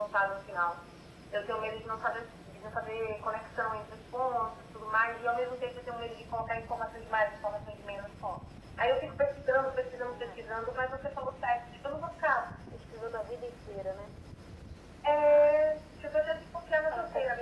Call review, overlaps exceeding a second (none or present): none